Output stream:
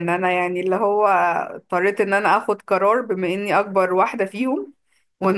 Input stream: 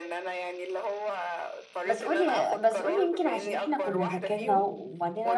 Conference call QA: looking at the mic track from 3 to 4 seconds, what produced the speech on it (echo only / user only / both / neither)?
both